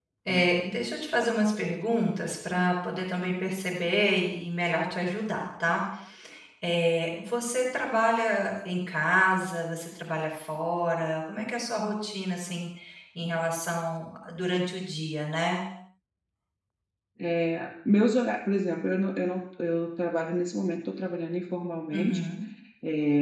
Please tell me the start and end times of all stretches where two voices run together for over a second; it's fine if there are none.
none

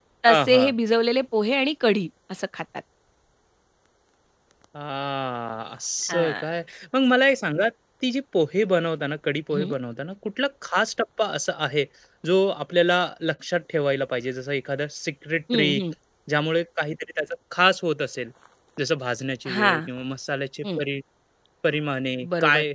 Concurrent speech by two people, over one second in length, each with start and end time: none

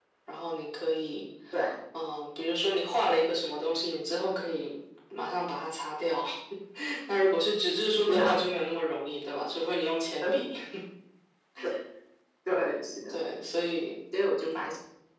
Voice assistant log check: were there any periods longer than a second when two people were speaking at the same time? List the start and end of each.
none

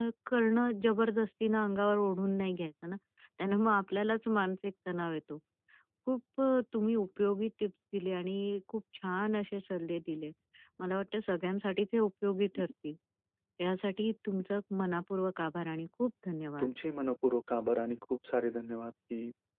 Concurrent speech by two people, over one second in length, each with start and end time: none

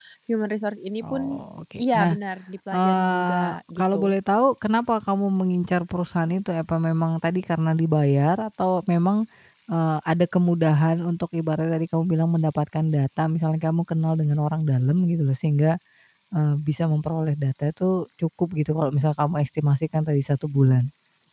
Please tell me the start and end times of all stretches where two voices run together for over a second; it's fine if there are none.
2.7-4.1

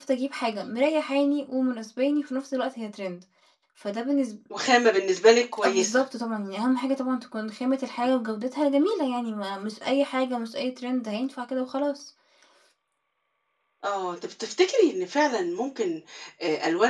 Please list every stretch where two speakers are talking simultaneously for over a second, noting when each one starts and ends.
none

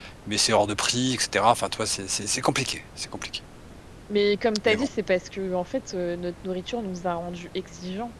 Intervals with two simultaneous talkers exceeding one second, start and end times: none

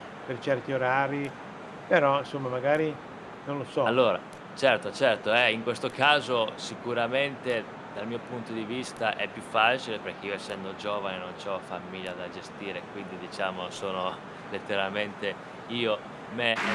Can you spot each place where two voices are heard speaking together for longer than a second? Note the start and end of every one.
none

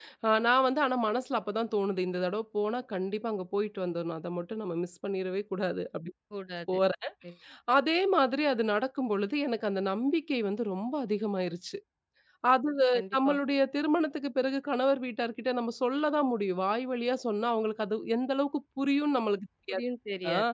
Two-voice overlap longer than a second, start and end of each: none

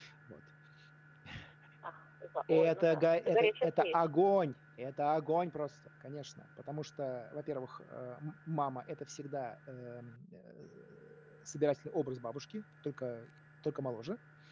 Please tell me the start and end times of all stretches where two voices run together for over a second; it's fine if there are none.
2.5-4.0

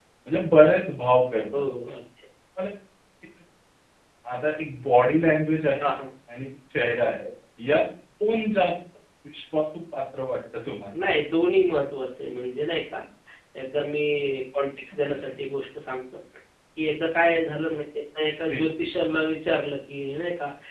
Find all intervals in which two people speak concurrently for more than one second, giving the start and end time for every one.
none

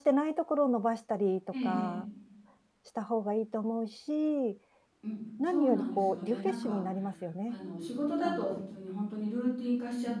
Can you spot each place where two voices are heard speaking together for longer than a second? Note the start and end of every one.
5.5-6.8

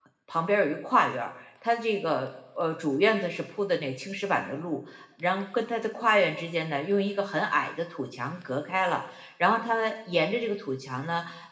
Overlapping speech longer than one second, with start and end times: none

